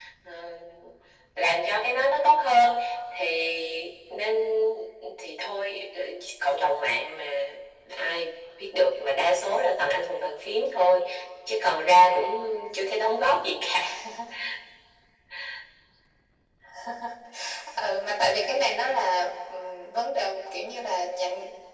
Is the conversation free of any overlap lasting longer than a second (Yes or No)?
Yes